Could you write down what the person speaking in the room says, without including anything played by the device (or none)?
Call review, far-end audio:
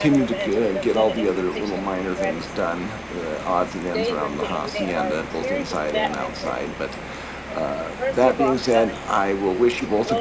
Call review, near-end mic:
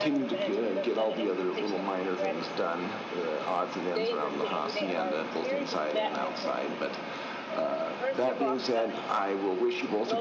none